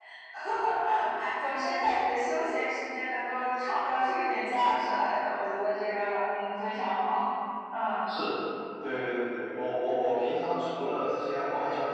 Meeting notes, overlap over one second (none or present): none